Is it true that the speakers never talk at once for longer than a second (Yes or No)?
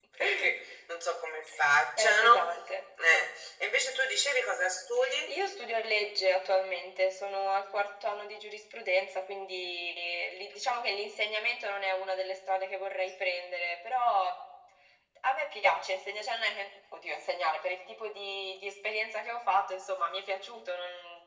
Yes